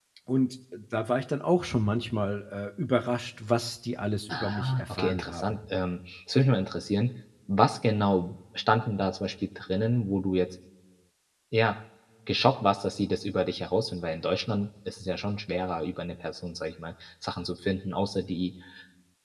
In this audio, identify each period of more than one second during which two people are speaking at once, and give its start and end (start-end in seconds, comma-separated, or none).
4.3-5.6